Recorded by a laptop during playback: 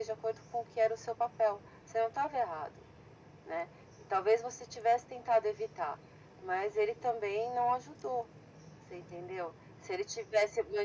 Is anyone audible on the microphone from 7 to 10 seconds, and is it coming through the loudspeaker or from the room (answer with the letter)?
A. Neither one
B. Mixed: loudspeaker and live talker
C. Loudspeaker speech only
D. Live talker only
C